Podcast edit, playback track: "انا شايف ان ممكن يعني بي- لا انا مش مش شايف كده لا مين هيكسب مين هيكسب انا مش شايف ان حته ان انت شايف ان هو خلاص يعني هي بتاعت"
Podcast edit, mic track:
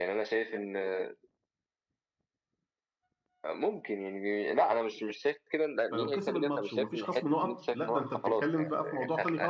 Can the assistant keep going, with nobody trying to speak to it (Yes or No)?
No